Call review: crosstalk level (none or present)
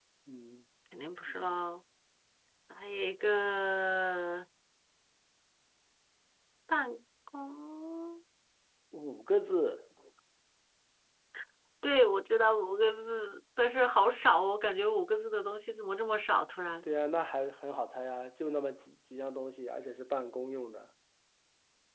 none